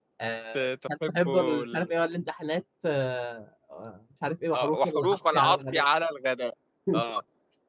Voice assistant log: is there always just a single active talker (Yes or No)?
No